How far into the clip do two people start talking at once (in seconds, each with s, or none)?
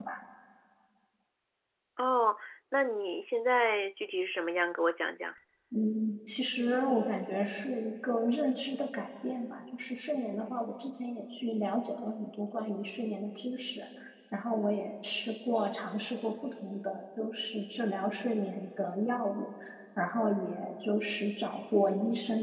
none